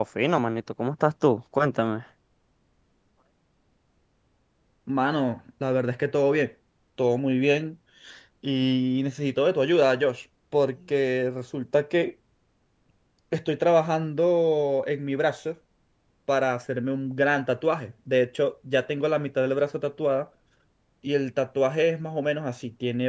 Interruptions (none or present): none